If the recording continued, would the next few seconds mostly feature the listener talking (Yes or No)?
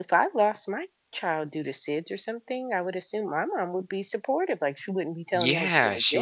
Yes